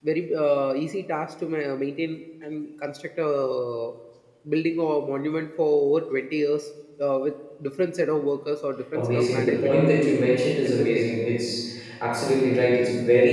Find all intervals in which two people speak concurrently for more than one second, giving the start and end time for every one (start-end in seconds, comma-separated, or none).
8.9-10.2